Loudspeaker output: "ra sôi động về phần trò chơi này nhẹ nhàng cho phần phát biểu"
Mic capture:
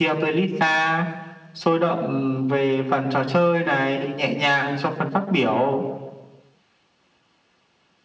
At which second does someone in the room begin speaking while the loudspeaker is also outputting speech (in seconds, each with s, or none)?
none